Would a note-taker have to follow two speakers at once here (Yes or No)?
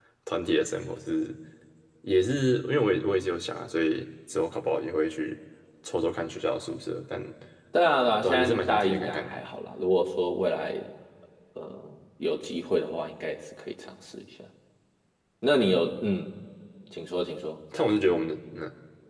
Yes